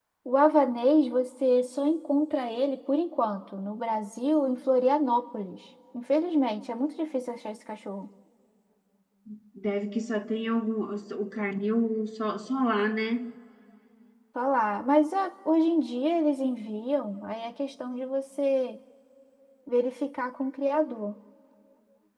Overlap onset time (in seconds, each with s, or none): none